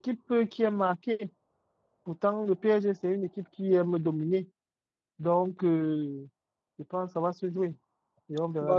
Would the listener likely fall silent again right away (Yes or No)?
No